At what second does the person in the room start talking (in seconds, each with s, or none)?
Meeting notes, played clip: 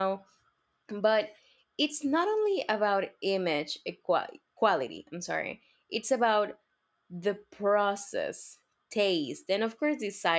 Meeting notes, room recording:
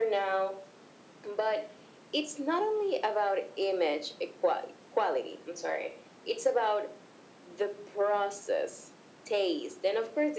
none